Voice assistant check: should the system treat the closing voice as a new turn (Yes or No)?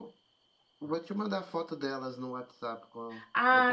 Yes